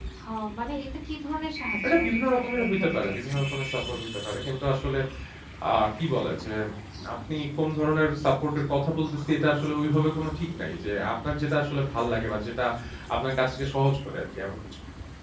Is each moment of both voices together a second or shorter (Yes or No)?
No